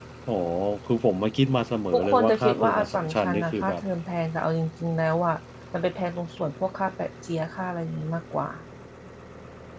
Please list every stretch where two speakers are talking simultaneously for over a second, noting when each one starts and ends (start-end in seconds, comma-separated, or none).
1.9-3.8